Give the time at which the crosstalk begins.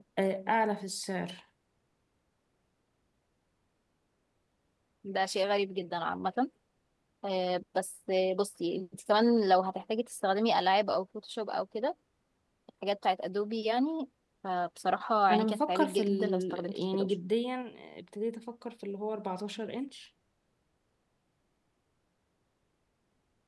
15.3 s

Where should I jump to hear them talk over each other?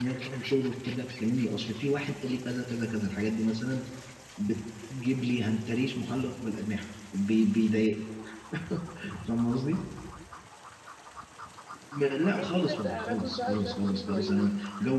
12.3 s

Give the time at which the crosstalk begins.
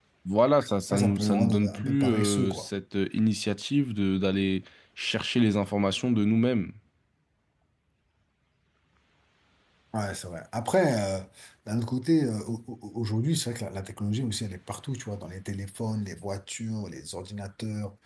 0.9 s

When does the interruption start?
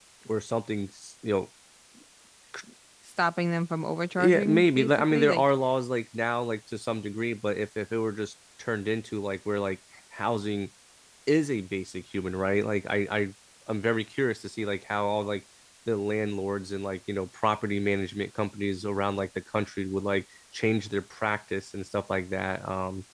4.2 s

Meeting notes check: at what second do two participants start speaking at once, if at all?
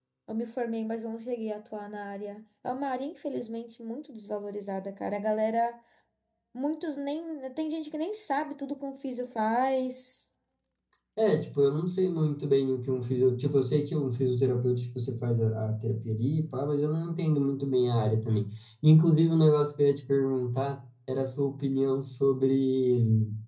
none

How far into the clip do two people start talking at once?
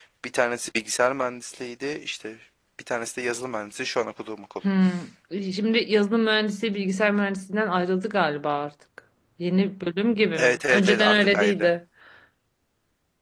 10.4 s

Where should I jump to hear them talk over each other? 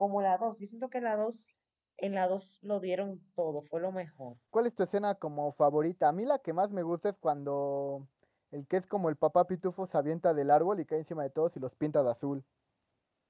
none

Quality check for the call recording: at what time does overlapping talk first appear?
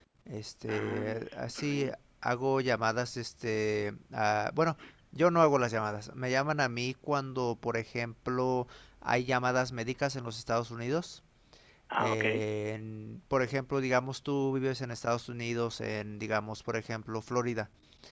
0.7 s

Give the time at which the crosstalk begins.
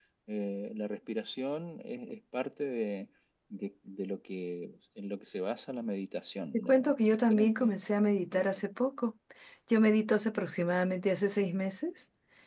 6.5 s

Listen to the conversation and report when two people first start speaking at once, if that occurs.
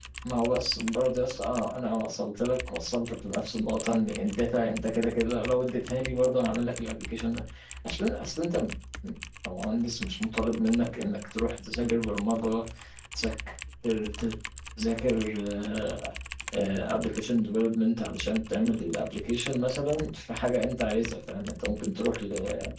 none

